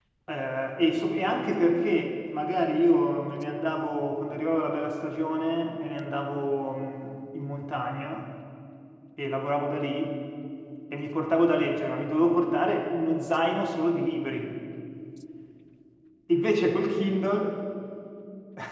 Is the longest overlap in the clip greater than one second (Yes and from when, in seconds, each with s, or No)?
No